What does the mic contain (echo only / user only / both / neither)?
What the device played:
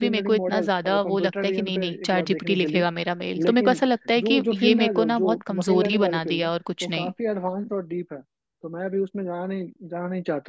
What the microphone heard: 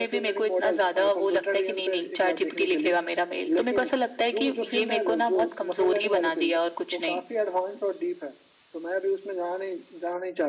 echo only